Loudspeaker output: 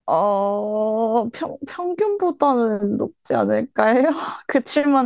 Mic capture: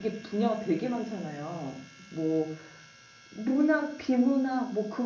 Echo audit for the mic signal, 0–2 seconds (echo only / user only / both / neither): user only